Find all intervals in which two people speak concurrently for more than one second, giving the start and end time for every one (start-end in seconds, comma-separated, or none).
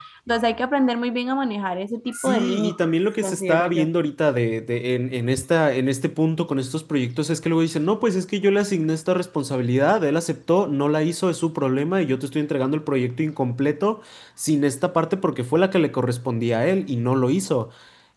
2.1-3.9